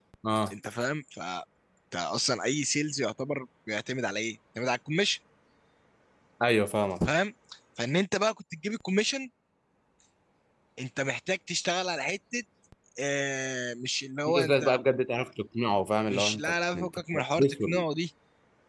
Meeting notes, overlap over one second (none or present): present